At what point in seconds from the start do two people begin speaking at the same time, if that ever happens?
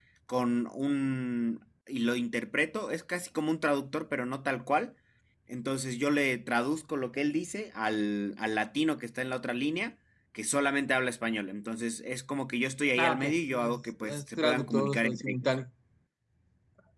13.0 s

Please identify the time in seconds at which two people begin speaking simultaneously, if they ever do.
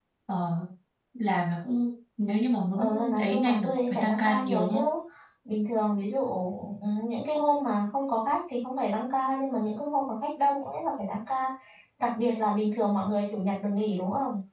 2.7 s

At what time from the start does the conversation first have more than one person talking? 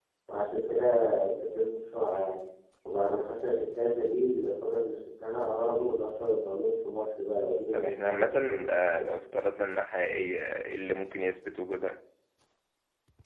7.7 s

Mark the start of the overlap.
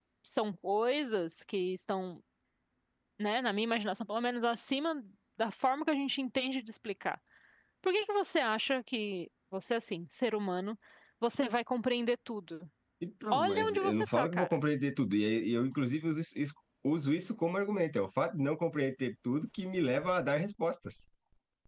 13.3 s

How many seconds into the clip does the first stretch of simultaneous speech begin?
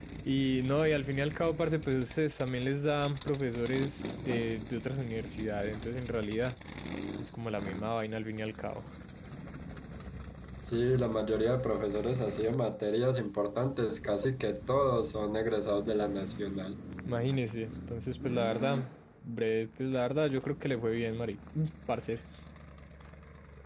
none

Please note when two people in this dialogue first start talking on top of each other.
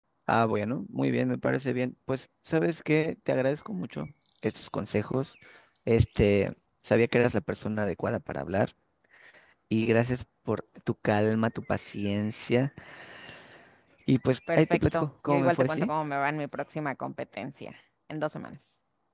14.5 s

